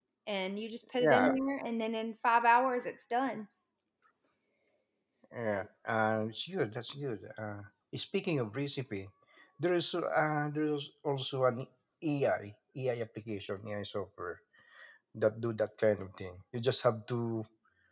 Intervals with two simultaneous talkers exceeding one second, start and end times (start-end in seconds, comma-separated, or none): none